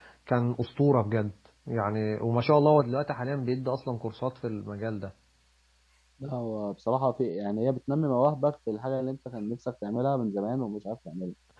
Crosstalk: none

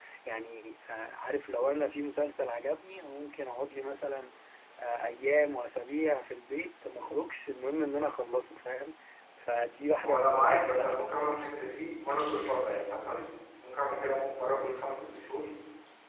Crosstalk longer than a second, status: present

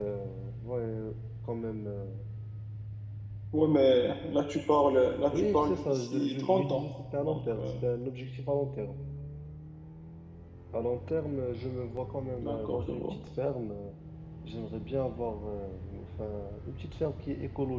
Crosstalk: present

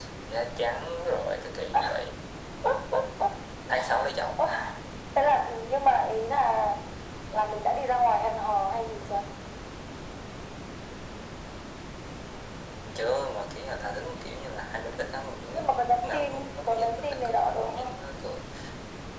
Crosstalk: present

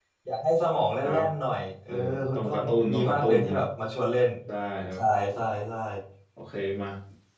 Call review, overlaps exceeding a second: present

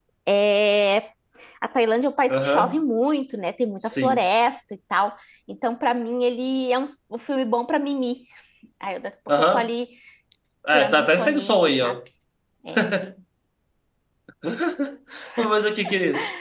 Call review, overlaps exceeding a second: present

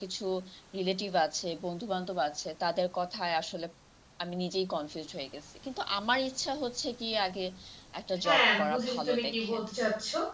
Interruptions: present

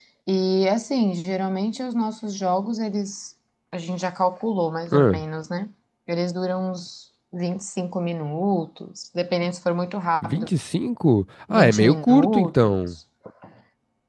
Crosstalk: present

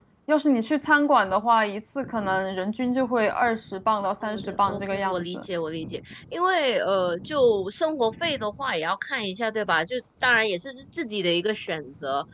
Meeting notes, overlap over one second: present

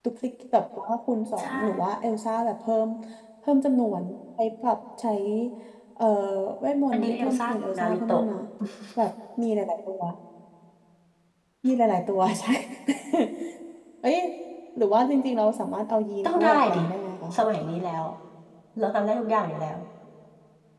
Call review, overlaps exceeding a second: present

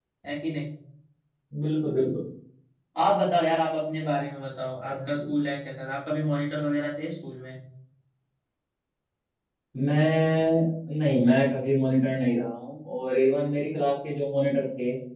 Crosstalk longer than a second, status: none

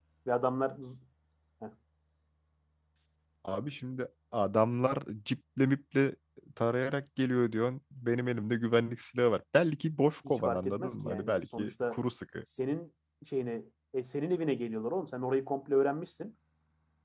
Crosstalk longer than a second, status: present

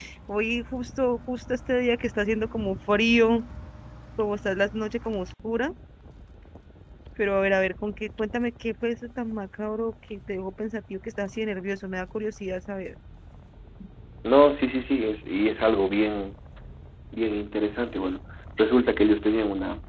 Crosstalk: none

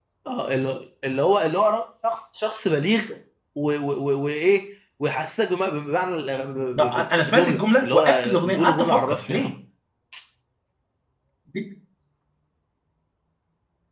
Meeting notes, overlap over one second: present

